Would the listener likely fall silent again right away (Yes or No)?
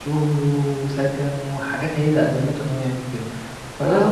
No